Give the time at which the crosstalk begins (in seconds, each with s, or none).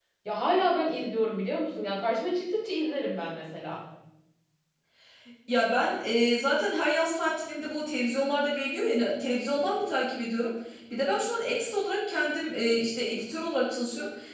none